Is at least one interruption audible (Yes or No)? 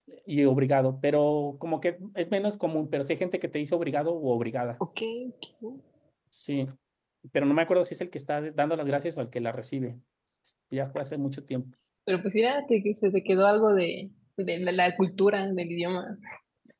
No